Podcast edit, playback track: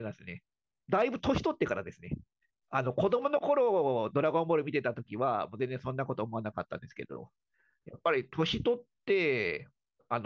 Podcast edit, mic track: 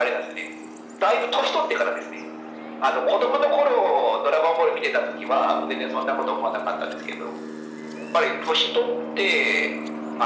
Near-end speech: none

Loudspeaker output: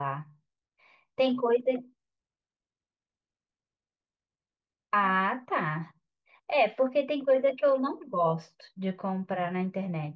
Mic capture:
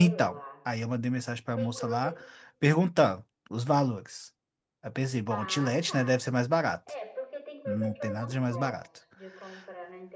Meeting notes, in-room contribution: present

